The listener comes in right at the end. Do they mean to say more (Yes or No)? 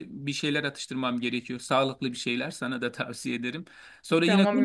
Yes